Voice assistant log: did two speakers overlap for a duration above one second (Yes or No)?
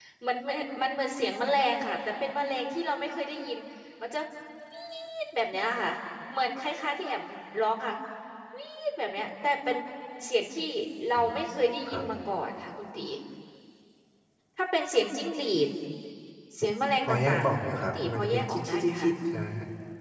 Yes